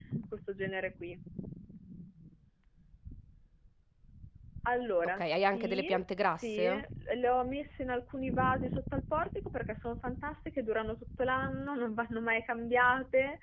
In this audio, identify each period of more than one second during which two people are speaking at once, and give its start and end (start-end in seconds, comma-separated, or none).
5.2-6.8